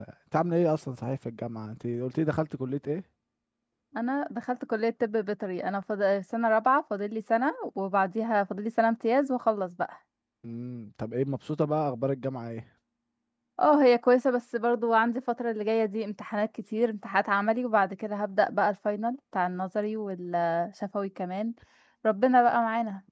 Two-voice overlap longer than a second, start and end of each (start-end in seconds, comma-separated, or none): none